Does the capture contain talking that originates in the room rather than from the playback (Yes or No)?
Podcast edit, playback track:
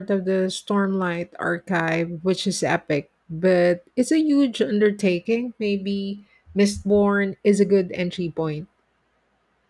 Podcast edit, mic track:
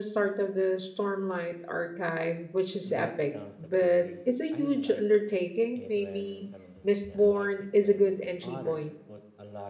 Yes